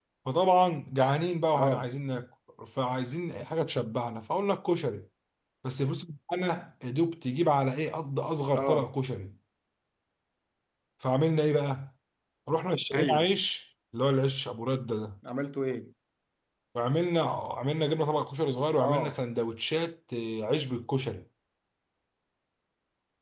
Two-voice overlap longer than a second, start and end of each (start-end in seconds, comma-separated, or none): none